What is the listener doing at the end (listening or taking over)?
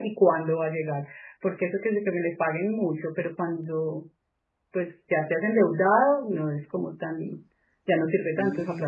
taking over